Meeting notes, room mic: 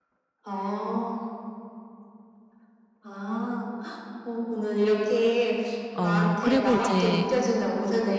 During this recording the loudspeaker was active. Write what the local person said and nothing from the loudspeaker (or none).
어 그리고 이제